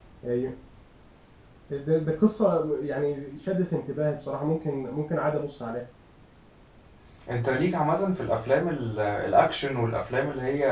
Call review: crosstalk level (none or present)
none